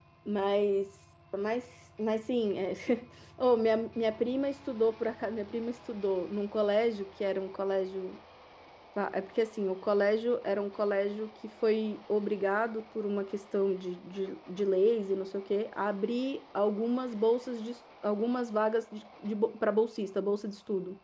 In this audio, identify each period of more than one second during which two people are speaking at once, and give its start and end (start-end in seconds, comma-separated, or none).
none